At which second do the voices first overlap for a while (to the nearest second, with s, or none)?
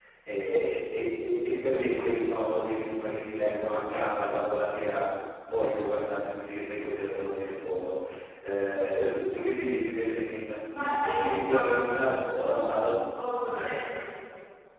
11 s